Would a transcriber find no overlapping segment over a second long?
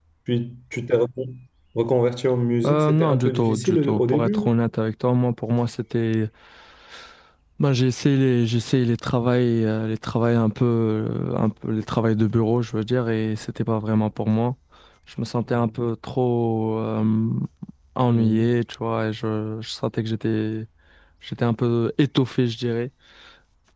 No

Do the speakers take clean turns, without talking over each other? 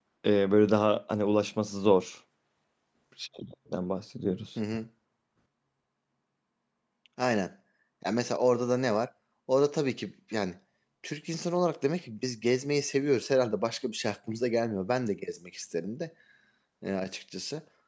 Yes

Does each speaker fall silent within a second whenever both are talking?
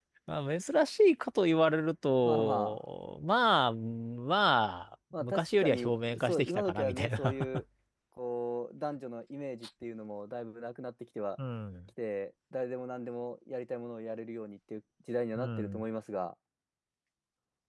No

